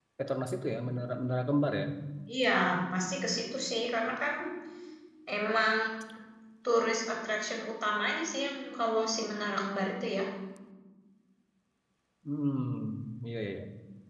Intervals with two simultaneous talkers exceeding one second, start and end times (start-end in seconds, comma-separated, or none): none